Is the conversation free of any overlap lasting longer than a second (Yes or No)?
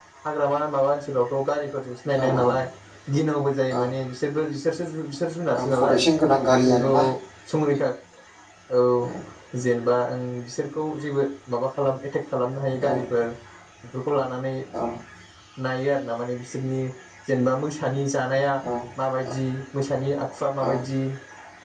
Yes